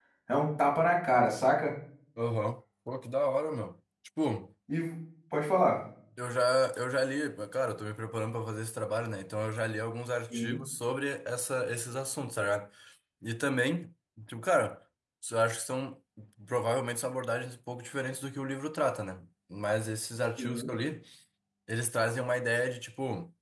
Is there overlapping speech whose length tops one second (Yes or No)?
No